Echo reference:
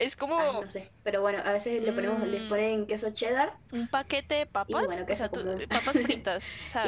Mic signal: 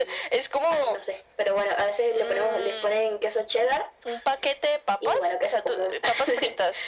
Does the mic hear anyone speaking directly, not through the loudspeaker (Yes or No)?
No